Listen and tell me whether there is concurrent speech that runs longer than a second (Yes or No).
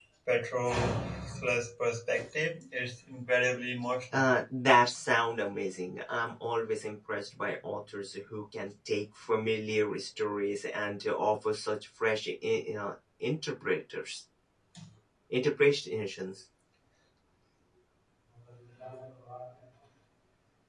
No